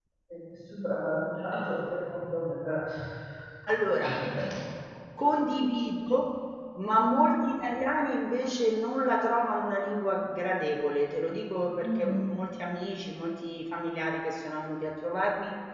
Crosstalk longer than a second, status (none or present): none